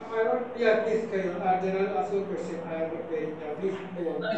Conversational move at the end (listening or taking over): taking over